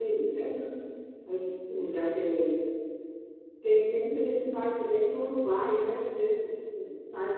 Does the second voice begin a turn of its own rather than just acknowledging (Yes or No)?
No